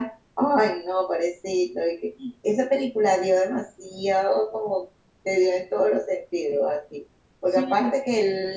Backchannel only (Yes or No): Yes